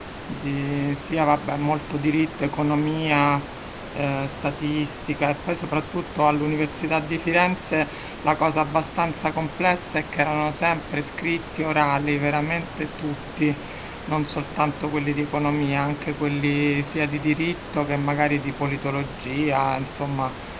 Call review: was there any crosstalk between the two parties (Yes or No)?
No